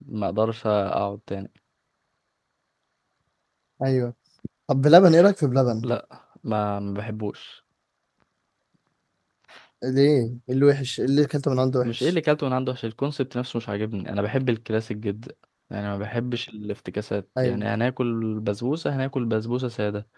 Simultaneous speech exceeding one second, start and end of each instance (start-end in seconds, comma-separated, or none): none